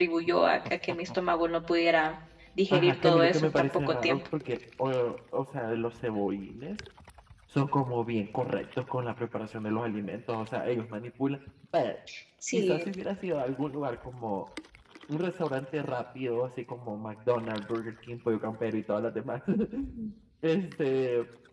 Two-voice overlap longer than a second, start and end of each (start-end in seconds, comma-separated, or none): 2.7-4.2